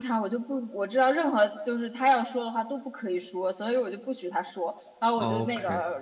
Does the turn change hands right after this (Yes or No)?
No